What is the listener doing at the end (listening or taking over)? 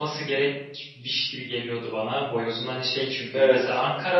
listening